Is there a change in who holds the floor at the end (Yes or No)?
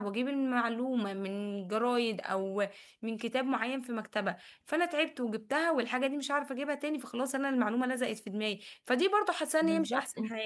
No